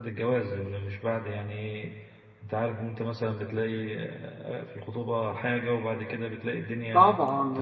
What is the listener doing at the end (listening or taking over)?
taking over